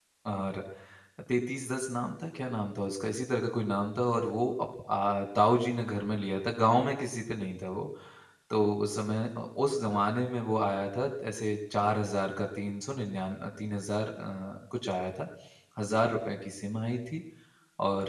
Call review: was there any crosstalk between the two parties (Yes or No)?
No